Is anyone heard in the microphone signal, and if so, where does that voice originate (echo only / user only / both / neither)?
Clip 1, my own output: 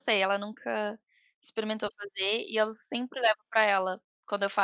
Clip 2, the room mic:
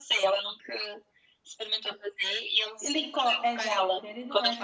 both